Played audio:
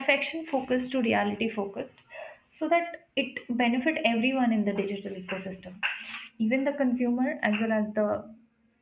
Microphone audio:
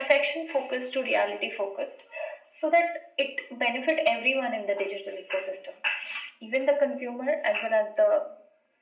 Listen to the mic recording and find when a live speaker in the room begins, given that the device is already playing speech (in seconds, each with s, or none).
none